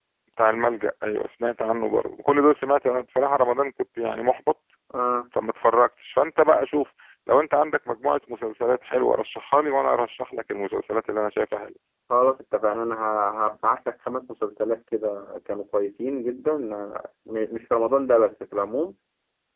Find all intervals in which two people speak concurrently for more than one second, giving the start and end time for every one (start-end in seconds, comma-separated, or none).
none